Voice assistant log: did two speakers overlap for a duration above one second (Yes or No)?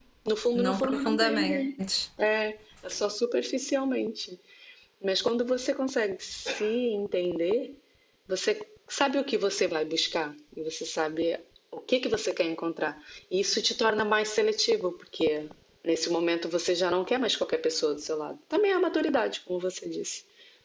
Yes